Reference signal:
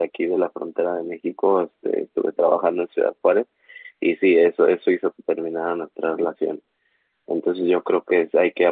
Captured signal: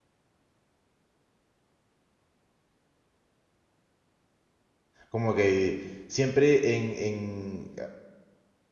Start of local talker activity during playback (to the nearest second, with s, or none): 5 s